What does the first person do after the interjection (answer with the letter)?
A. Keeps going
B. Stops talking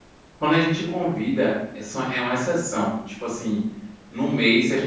A